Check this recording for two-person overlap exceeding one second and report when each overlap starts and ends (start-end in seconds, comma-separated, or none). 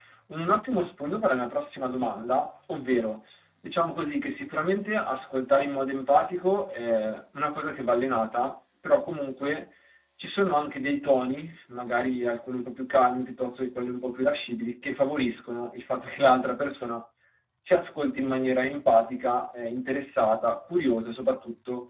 none